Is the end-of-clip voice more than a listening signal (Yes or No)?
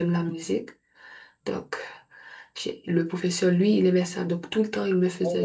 Yes